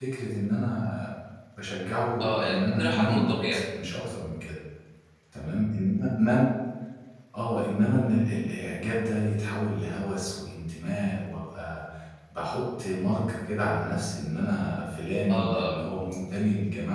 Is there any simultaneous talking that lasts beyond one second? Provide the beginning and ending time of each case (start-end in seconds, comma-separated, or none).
2.2-3.6